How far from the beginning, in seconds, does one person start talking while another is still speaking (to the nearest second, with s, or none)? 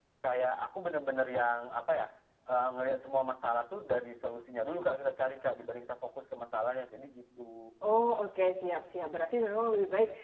none